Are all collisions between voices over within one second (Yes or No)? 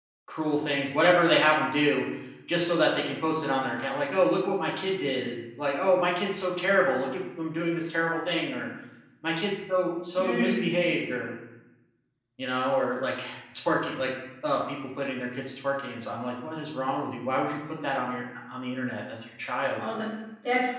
Yes